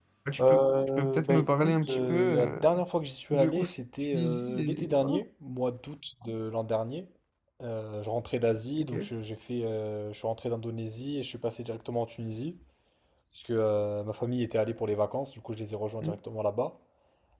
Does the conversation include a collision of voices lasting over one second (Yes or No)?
Yes